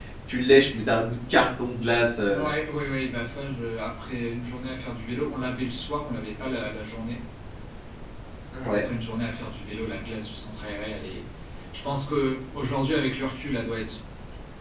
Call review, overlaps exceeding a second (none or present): none